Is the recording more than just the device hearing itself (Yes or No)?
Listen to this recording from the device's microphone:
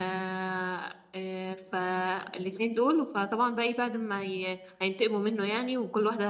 Yes